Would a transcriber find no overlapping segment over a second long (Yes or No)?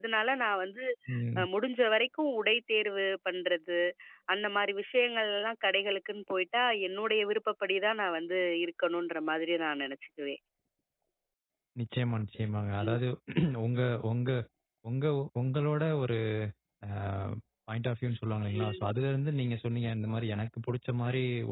Yes